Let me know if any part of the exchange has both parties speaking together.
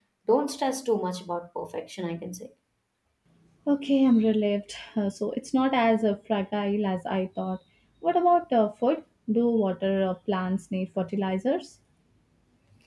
No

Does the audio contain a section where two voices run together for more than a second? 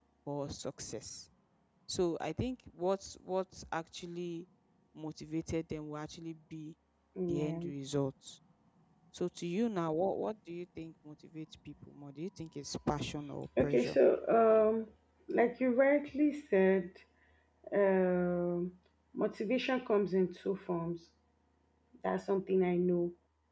No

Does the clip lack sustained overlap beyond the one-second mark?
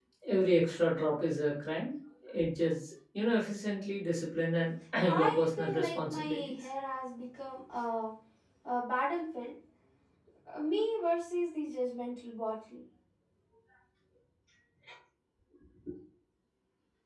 No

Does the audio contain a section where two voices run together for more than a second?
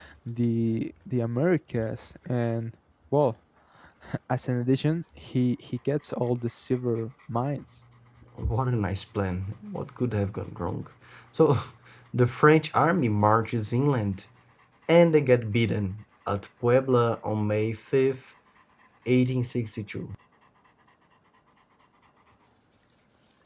No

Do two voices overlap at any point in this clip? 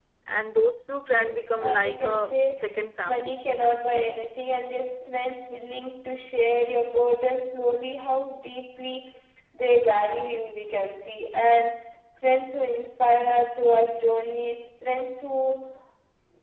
Yes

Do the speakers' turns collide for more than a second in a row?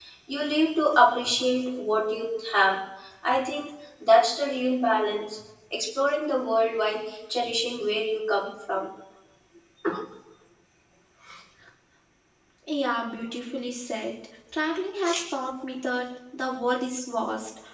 No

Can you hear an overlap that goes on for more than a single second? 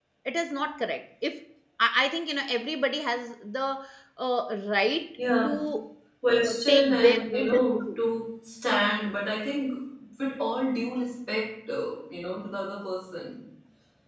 Yes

